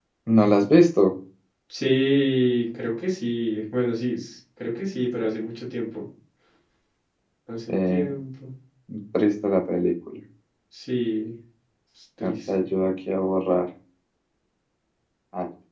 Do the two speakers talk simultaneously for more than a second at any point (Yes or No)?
No